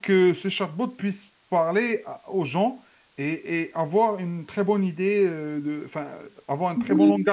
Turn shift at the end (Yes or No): Yes